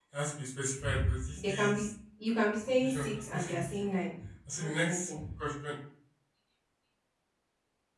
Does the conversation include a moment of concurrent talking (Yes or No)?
Yes